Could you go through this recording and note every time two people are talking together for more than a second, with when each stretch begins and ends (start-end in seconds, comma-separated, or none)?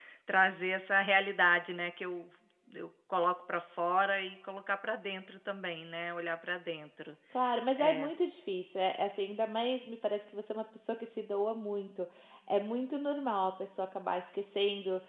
none